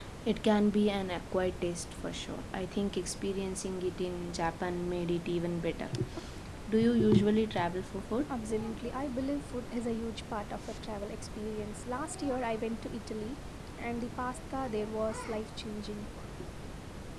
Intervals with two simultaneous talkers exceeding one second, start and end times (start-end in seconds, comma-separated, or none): none